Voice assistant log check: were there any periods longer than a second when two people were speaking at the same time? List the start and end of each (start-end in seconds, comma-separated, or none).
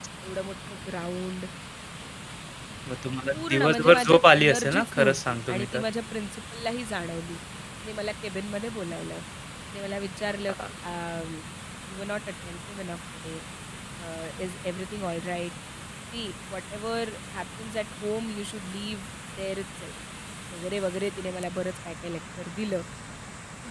3.3-5.8